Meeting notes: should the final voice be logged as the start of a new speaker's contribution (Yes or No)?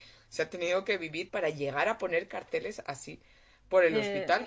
No